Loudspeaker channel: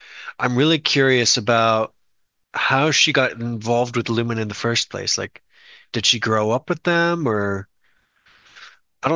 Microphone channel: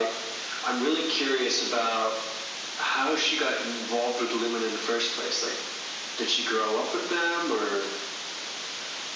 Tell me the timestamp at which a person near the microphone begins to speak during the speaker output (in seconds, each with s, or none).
none